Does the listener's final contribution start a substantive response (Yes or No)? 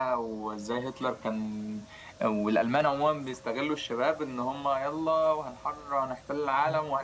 No